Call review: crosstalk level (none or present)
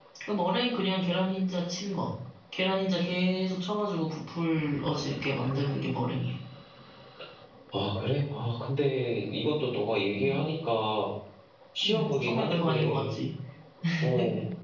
present